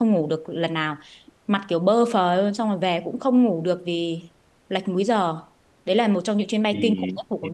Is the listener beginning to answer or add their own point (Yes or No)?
Yes